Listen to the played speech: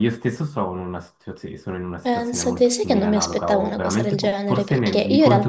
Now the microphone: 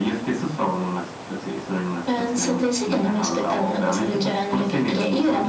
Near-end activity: none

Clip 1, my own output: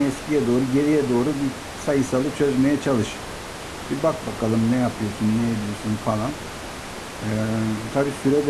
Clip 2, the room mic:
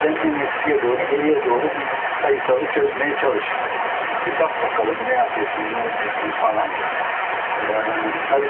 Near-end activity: present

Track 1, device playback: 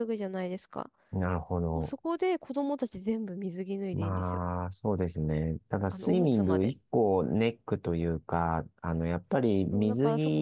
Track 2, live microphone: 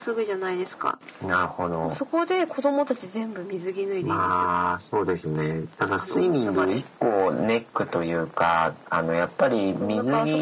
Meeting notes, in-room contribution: none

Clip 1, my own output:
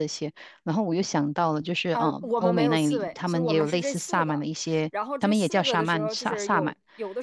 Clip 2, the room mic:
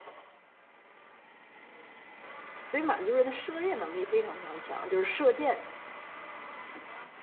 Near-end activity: present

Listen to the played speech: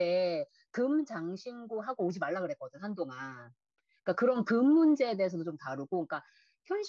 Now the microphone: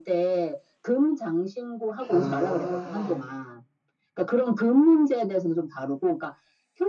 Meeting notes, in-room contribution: present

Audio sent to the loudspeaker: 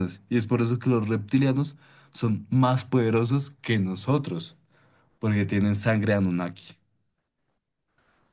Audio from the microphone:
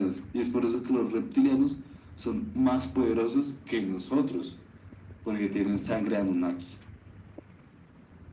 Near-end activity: none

